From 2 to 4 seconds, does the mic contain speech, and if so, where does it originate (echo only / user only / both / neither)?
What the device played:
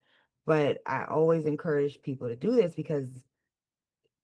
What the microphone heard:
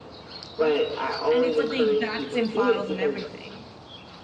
both